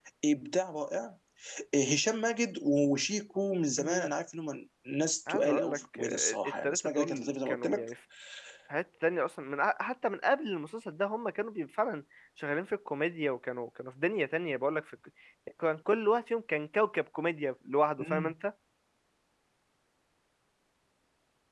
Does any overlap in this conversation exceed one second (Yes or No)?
Yes